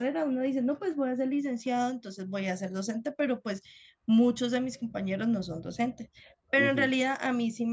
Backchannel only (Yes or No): Yes